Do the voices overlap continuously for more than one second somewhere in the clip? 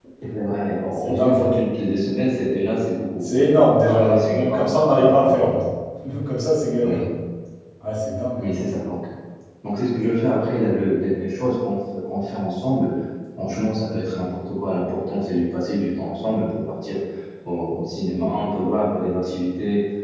Yes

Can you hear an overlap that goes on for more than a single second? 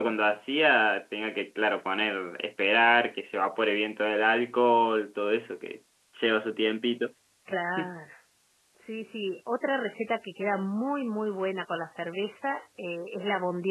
No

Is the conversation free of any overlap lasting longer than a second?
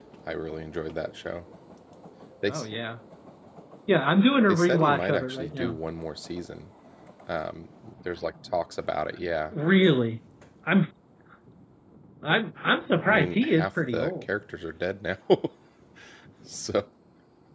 No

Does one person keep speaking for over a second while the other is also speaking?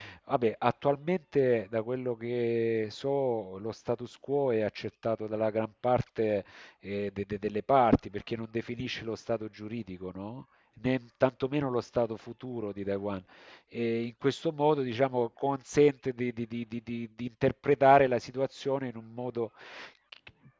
No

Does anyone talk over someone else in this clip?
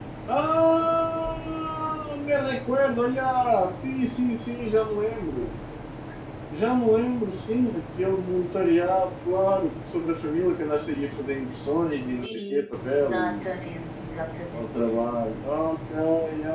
Yes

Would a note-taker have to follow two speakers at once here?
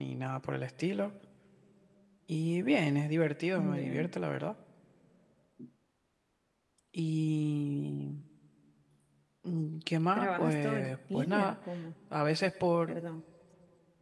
Yes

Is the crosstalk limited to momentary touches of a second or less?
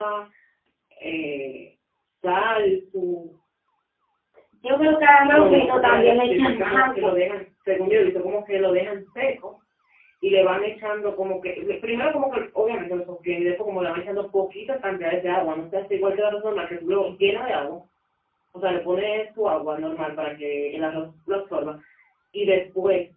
No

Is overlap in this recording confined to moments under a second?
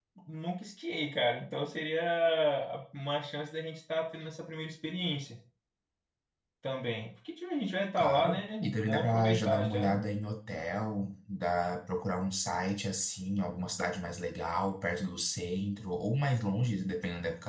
No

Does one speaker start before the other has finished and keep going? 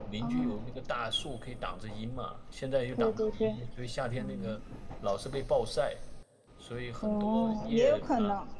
Yes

